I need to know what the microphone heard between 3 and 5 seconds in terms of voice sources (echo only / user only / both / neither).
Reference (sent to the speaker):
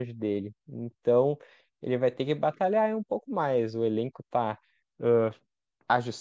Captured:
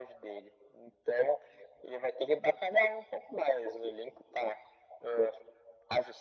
echo only